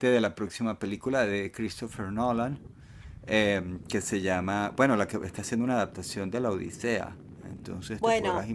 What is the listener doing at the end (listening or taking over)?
taking over